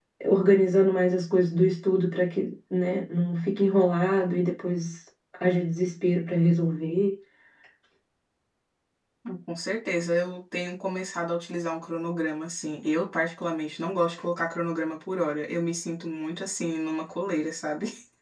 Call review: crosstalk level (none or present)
none